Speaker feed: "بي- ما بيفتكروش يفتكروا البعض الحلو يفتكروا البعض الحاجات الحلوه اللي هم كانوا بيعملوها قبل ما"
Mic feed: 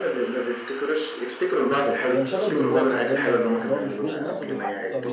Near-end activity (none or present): present